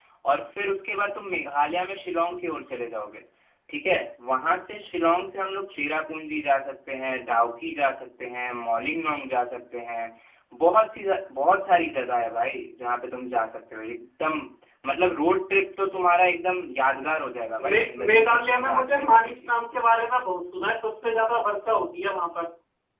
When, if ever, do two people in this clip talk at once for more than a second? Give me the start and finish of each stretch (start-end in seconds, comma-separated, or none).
17.6-19.5